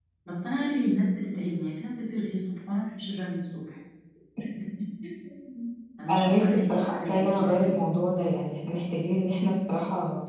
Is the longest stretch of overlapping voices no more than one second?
No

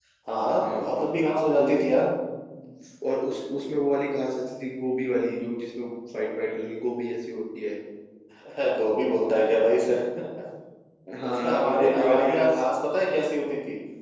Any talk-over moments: Yes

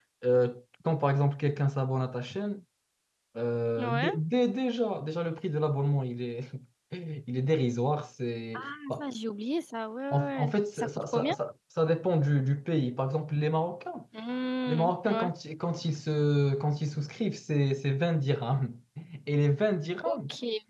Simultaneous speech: Yes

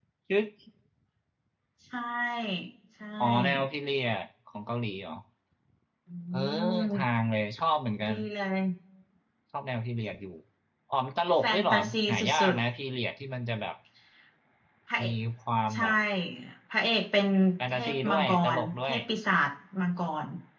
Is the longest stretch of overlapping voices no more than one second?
No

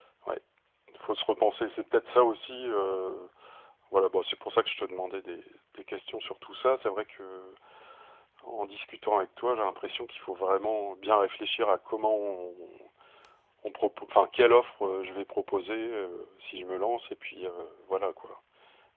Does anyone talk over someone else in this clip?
No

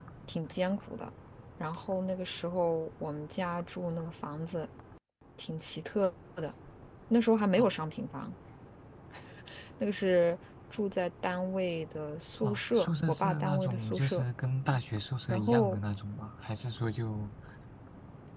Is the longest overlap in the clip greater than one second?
Yes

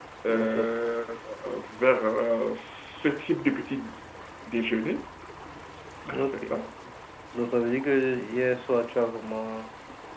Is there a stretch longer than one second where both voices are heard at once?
No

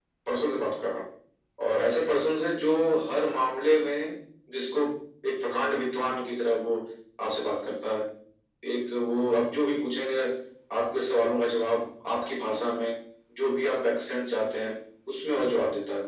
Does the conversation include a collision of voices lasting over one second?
No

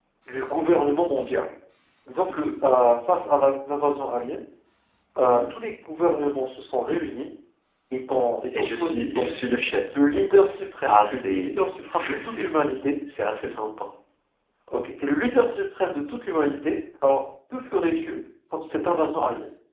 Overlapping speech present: Yes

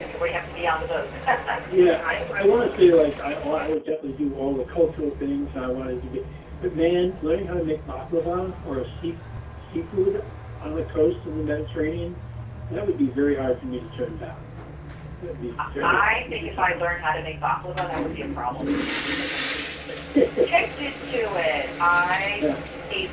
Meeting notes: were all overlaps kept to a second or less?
No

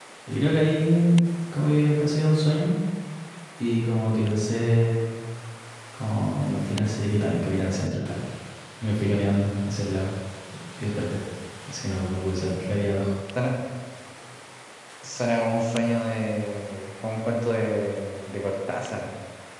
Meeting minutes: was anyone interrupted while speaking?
No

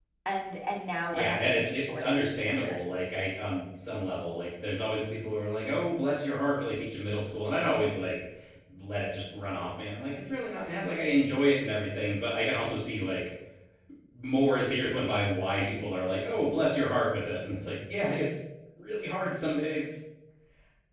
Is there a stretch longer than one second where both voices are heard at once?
Yes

